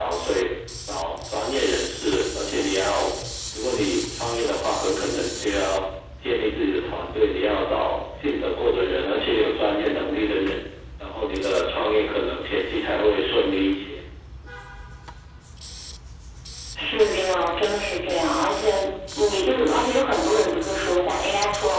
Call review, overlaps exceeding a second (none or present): none